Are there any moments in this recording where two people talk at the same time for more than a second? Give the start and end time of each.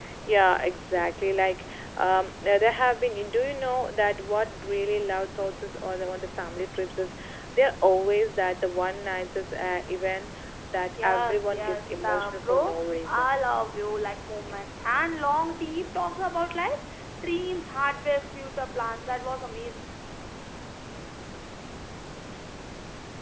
11.0-13.3

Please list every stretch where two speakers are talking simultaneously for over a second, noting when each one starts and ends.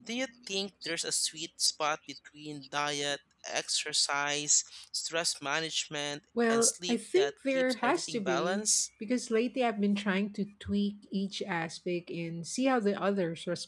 6.5-8.7

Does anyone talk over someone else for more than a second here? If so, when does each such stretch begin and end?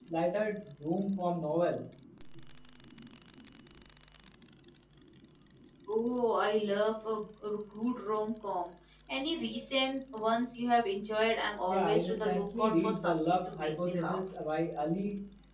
11.7-14.2

